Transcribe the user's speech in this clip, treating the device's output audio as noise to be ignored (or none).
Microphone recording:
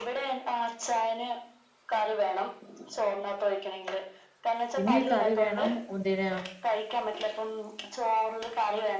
പിന്നെ ഈ കറി വേണം ഒന്തിന്